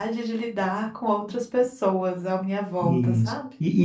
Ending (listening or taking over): taking over